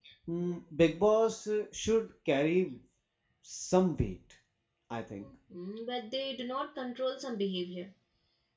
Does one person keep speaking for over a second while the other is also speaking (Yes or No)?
No